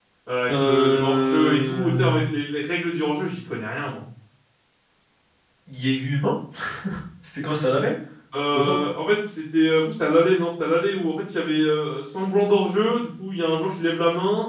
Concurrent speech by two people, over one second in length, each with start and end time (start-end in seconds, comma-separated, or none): 0.5-2.1